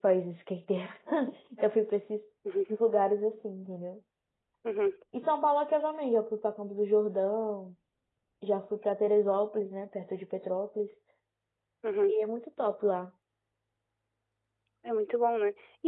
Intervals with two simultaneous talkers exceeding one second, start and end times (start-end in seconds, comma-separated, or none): none